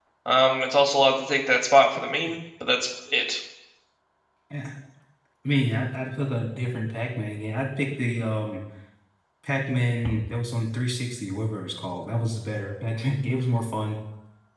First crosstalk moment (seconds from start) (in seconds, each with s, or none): none